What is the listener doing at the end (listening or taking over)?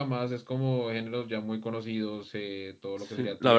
taking over